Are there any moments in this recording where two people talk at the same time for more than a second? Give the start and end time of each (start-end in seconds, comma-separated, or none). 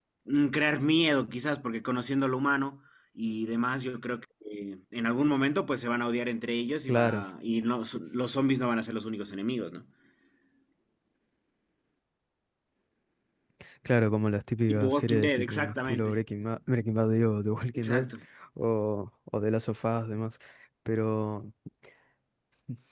14.7-16.2